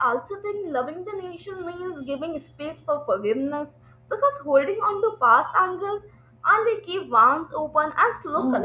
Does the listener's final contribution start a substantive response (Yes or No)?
Yes